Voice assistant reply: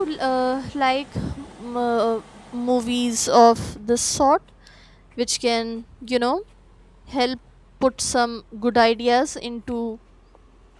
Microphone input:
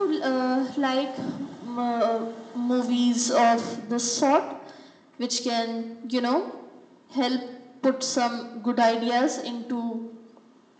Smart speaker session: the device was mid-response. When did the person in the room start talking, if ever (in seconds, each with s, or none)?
none